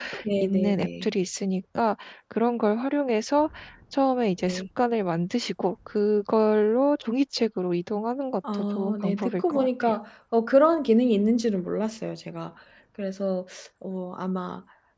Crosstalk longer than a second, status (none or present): present